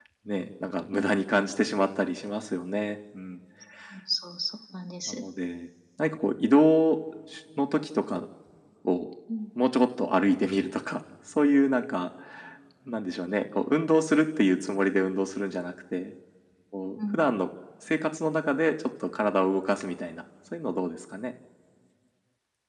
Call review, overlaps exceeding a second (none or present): none